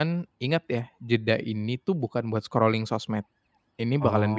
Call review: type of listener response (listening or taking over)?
listening